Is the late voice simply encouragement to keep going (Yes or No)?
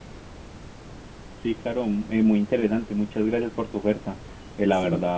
Yes